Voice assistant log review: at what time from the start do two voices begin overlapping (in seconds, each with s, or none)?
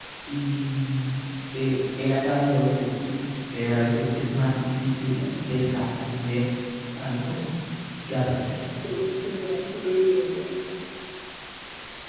none